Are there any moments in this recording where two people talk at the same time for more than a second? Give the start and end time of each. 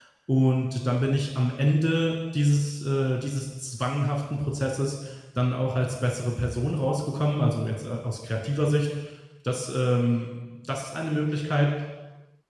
none

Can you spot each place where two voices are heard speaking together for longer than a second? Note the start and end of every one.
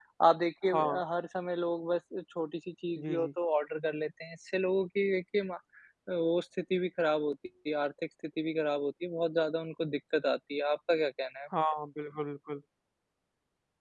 none

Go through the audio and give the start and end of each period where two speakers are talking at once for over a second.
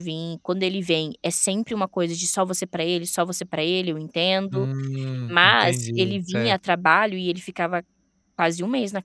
5.3-6.5

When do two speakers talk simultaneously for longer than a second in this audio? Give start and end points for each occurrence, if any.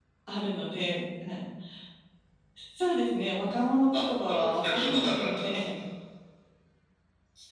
3.9-5.6

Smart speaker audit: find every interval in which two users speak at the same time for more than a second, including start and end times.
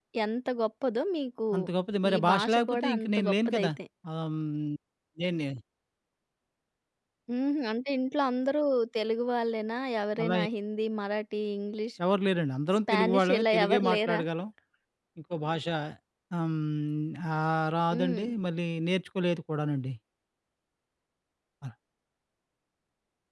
2.1-3.7, 12.9-14.2

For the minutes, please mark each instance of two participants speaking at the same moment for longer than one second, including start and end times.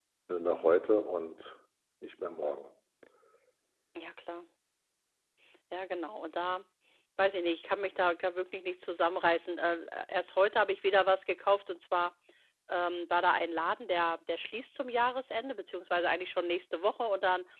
none

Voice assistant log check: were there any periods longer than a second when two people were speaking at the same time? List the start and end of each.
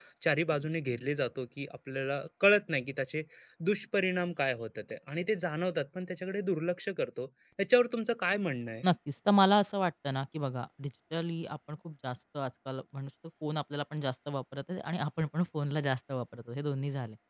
none

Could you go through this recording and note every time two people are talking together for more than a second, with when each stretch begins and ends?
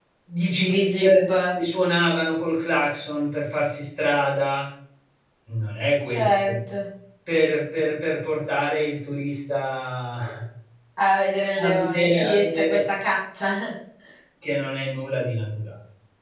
11.6-12.8

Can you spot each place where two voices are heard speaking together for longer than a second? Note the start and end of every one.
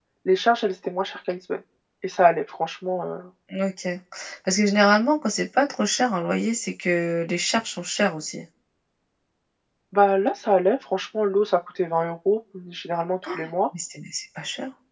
none

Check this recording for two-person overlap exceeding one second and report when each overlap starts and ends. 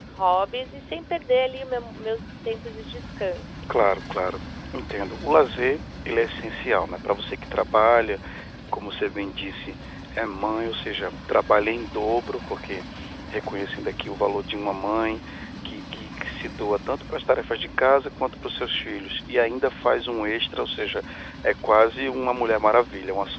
none

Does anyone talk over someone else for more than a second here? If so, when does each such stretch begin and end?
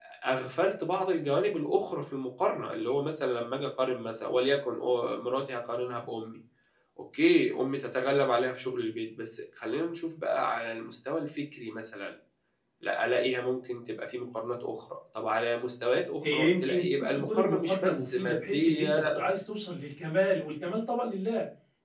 16.2-19.0

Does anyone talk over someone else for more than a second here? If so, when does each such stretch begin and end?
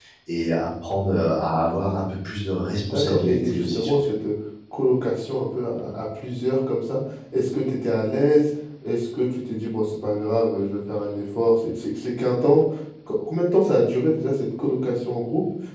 2.9-4.1

